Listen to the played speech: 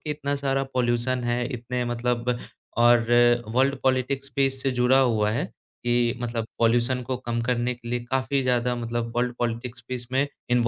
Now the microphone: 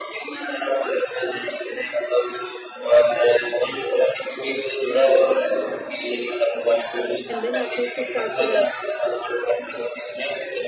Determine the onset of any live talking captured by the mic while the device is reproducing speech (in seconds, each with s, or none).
7.3 s